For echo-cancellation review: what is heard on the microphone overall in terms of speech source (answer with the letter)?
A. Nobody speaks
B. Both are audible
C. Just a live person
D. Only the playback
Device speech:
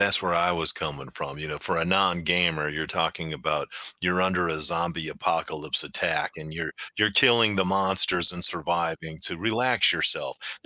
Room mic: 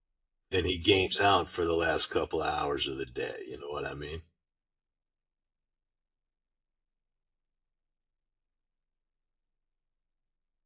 C